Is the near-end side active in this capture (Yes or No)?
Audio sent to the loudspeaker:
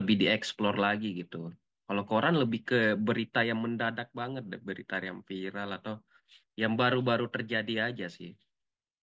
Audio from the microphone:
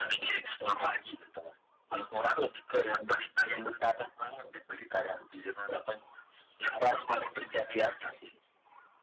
No